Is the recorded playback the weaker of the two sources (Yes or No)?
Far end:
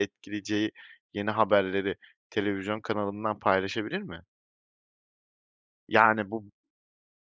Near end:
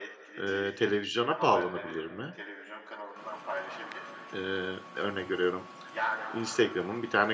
Yes